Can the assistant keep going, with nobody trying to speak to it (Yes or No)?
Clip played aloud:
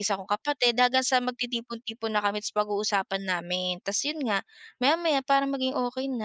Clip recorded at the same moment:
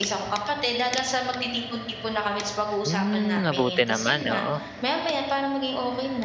No